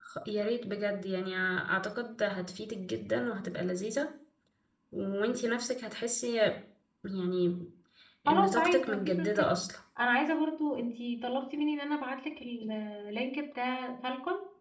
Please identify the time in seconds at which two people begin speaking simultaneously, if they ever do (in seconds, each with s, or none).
8.3 s